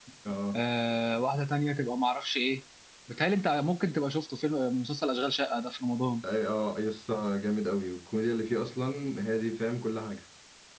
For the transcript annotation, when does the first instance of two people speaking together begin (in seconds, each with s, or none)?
none